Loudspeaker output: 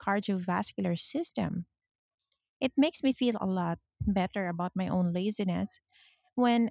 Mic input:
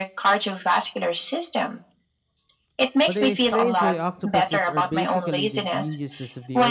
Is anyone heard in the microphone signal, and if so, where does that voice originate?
both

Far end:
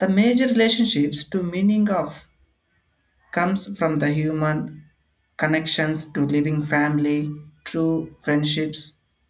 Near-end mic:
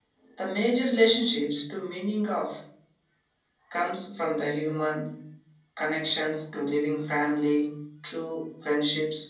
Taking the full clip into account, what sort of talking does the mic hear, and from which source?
echo only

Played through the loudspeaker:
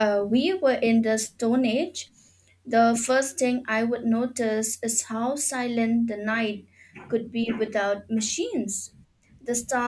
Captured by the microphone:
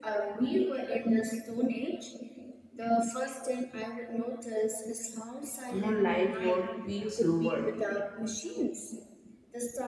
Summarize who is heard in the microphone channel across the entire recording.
both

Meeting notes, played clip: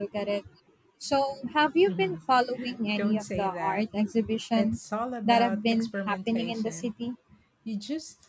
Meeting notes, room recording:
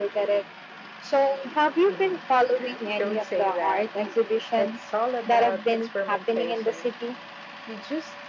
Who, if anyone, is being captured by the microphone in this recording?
echo only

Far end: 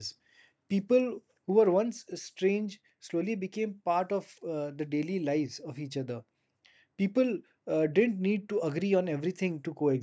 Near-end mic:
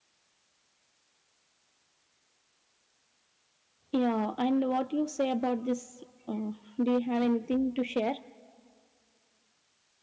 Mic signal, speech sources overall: user only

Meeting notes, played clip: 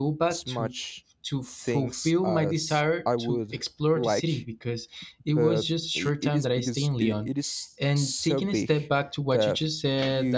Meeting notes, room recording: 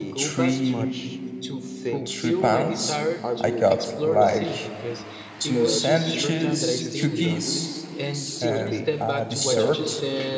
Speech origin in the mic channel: both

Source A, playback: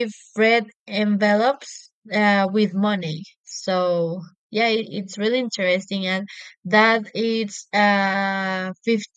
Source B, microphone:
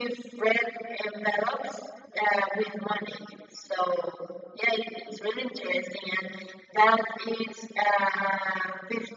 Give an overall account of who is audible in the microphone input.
echo only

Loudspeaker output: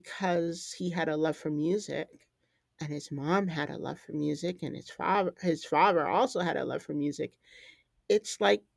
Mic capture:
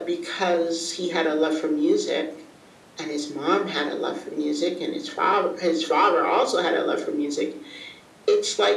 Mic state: echo only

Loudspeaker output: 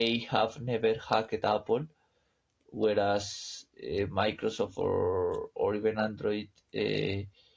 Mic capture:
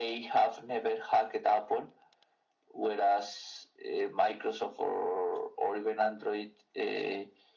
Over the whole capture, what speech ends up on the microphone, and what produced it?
echo only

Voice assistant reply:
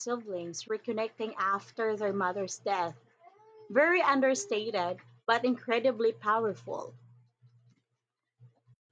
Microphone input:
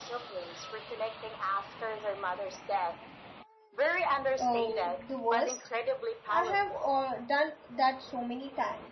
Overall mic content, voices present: both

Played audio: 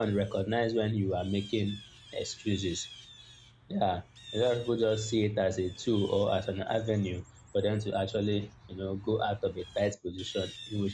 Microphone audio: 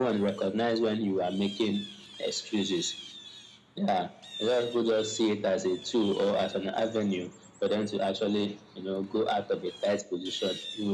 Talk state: echo only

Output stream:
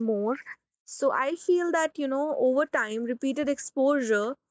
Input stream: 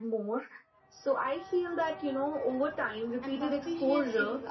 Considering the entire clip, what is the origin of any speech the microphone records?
both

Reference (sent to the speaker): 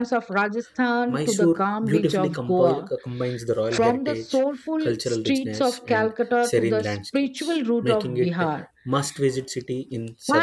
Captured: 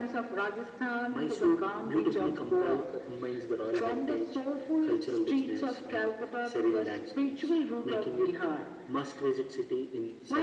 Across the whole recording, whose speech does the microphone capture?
echo only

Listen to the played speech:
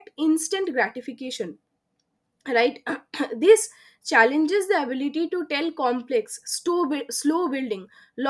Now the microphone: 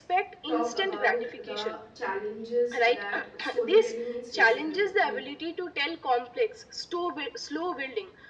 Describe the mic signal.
both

